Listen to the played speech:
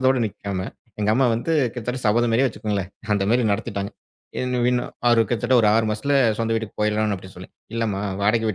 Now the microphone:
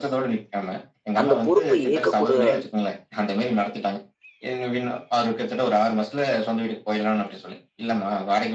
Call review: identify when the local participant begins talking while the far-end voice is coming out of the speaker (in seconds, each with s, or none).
1.2 s